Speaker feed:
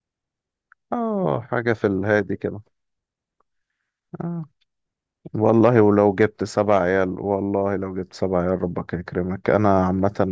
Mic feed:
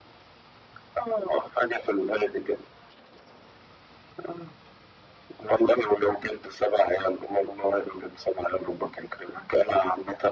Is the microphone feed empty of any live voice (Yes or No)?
Yes